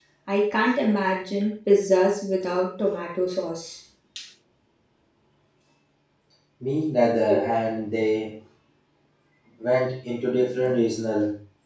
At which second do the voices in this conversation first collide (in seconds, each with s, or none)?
none